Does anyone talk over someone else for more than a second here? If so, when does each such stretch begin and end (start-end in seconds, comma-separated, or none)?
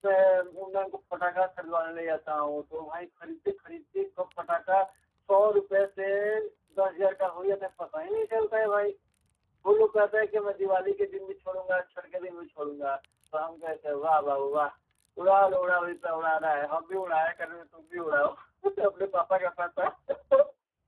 none